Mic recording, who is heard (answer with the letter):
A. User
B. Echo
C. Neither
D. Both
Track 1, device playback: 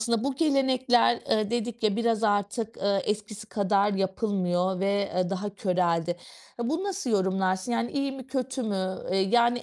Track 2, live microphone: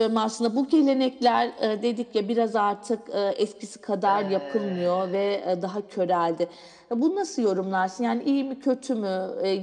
D